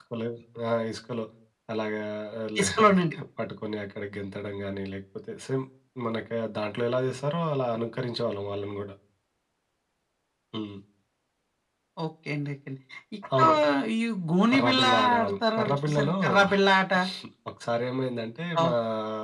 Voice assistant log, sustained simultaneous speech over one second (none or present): present